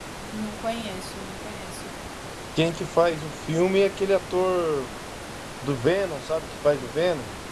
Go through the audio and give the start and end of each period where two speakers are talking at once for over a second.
none

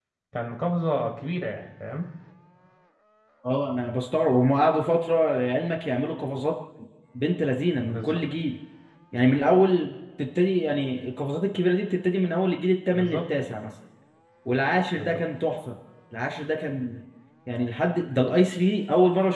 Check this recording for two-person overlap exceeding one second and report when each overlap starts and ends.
none

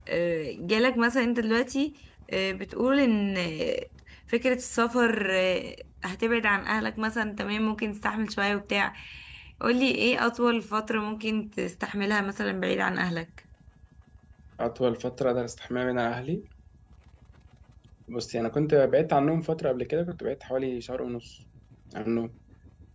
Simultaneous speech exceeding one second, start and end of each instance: none

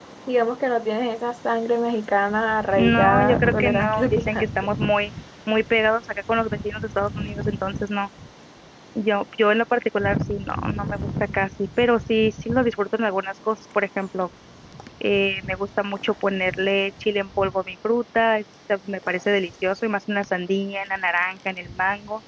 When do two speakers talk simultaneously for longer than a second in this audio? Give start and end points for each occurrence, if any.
2.8-4.5

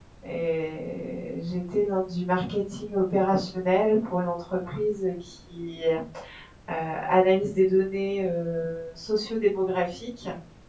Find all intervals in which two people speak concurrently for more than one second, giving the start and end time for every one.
none

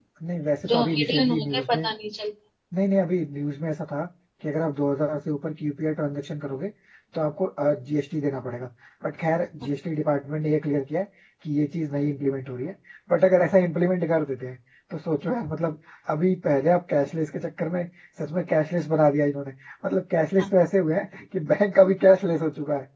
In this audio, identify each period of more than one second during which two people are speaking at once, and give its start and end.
0.7-1.9

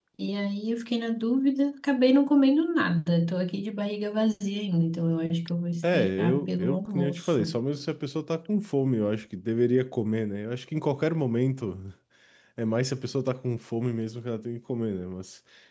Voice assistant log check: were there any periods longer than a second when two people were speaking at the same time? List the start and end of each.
5.8-7.6

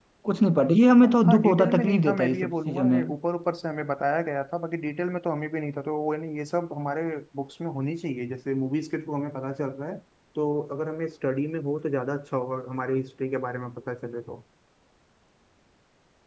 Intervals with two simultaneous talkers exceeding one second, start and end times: 1.0-3.0

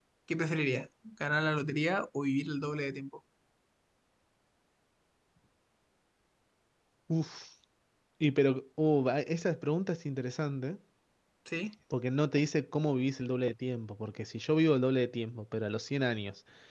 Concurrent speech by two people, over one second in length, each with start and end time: none

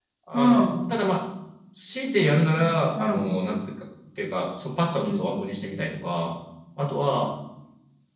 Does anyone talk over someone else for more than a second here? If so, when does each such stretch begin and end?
2.0-3.2

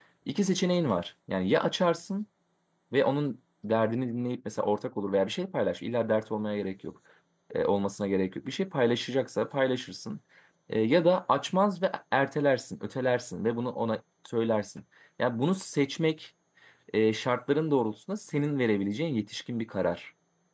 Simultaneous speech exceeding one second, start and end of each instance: none

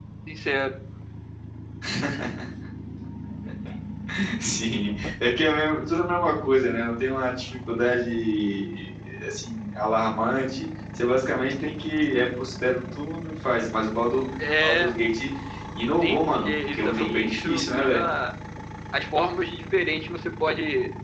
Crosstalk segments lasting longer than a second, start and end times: 16.0-18.0

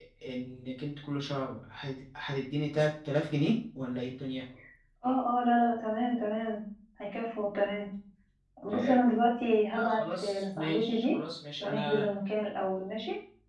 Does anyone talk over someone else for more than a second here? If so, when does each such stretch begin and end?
9.8-11.2

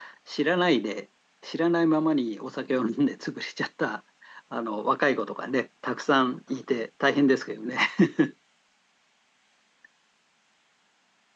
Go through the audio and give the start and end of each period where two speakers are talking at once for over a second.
none

